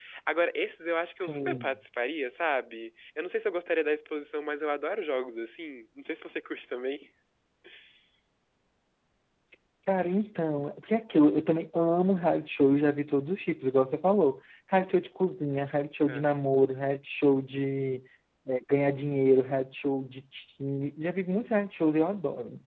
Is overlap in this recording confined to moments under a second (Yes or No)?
Yes